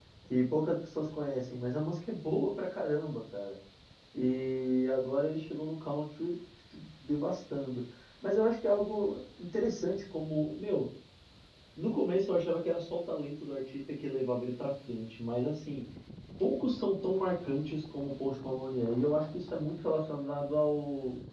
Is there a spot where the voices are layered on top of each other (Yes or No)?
No